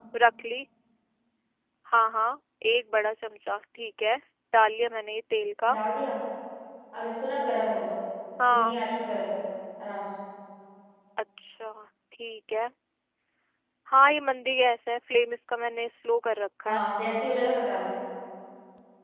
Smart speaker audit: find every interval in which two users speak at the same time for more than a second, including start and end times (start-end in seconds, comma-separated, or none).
none